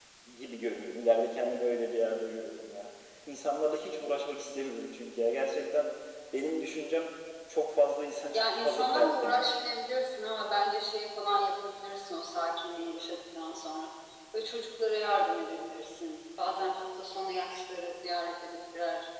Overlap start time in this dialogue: 8.3 s

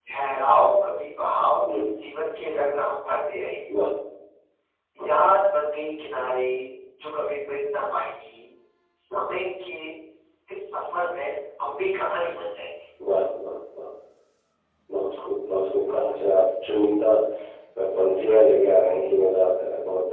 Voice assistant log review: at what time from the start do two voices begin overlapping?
none

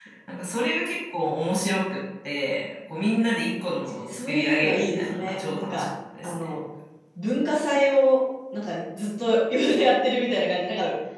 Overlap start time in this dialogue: 4.0 s

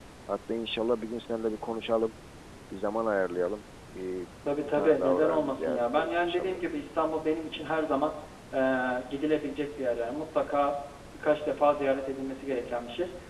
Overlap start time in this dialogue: 4.7 s

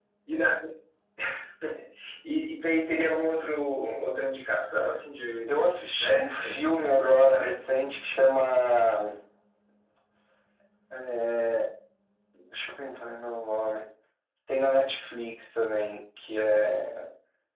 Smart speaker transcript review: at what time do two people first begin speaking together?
5.5 s

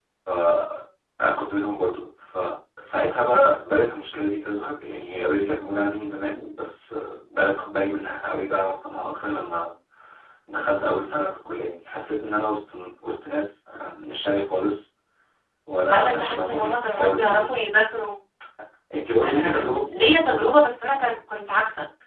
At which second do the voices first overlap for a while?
15.9 s

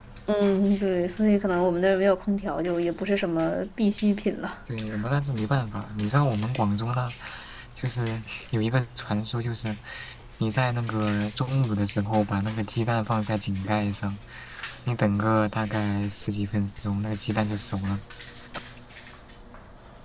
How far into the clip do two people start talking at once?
none

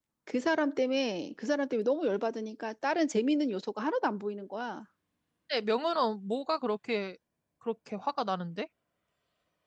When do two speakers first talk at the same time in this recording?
none

